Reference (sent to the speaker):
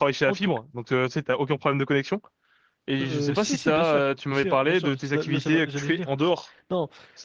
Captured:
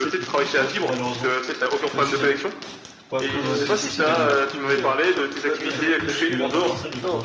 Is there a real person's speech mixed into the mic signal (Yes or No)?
Yes